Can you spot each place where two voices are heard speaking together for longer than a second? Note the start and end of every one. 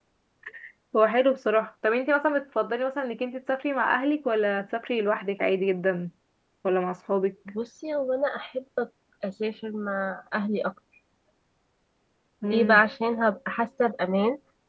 none

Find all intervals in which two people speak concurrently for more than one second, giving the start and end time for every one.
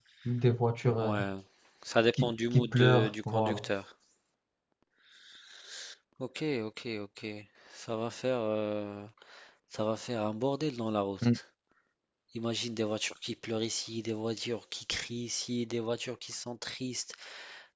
2.1-3.6

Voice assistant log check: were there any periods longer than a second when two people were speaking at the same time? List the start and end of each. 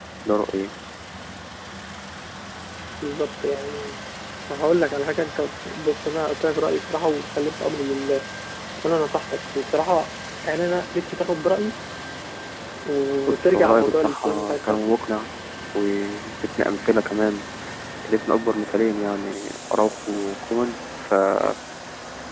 13.3-14.8

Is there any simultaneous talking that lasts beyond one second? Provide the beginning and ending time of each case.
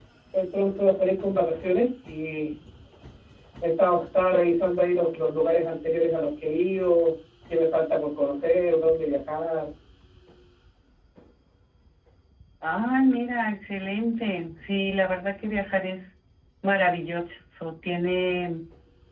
none

